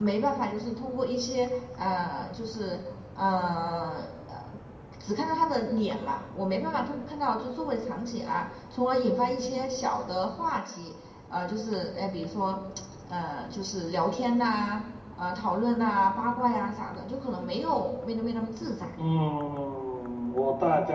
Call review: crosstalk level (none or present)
none